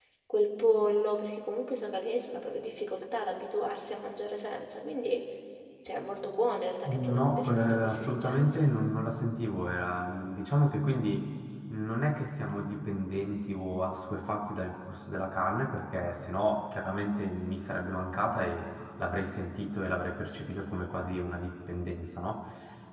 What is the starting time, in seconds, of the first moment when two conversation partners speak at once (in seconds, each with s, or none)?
6.8 s